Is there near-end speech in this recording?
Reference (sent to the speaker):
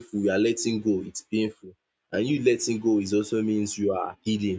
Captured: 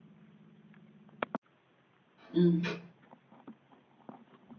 Yes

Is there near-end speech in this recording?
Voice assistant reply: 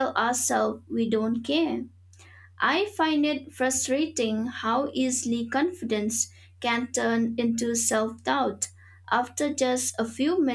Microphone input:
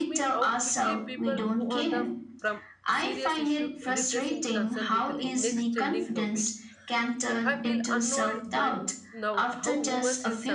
Yes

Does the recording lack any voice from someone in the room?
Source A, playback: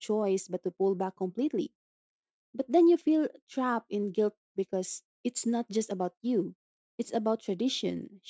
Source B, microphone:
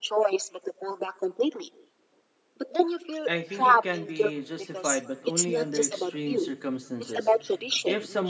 No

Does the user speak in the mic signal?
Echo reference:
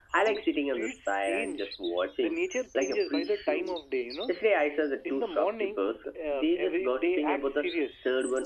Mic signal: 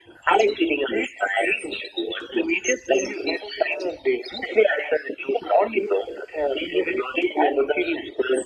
No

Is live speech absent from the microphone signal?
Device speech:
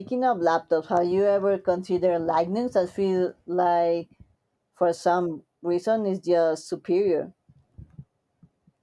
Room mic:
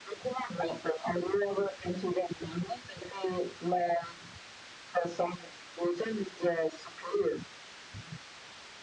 Yes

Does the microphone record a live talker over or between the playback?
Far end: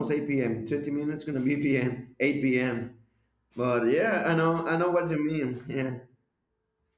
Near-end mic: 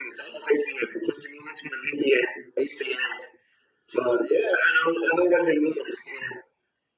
No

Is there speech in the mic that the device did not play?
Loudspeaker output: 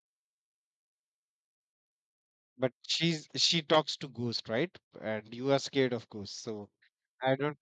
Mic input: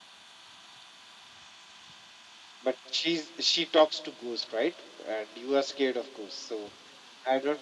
No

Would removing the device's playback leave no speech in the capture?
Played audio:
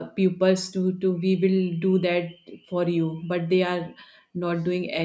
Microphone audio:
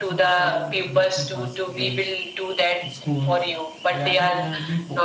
No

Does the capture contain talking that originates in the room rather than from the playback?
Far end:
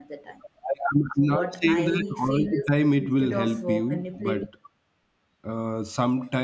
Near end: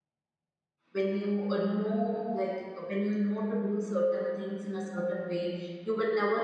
Yes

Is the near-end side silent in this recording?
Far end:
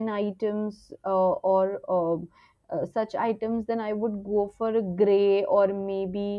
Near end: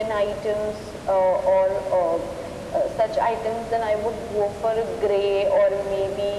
Yes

